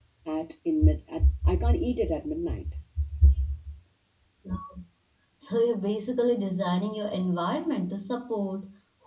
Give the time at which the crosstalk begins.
none

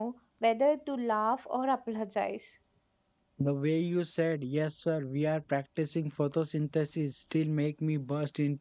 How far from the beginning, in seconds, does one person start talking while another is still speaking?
none

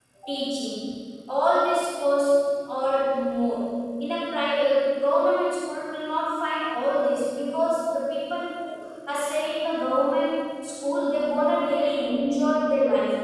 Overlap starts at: none

